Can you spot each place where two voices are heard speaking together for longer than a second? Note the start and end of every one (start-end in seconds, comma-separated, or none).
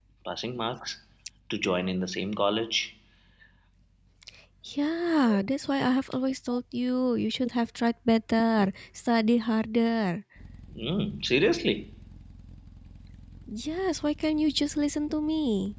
none